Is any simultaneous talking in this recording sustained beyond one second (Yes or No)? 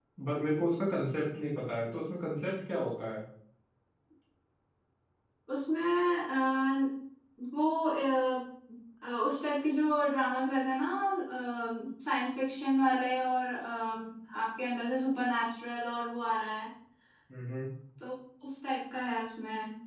No